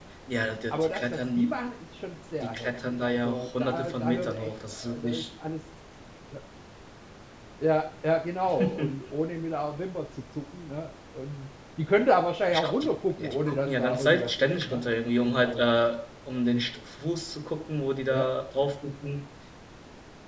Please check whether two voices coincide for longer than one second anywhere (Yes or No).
Yes